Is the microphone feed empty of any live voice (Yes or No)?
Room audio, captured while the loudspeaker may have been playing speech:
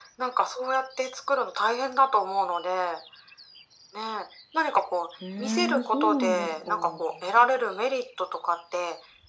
No